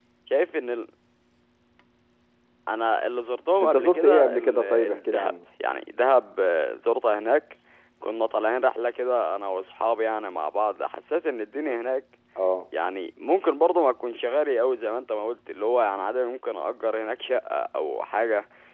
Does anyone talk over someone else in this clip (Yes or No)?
Yes